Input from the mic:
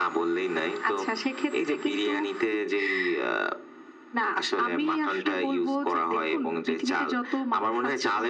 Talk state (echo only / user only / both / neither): echo only